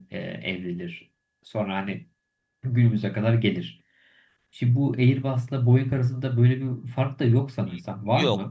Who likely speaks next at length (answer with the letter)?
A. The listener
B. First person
A